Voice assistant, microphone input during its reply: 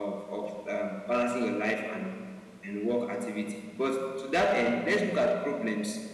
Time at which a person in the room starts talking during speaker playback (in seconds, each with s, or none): none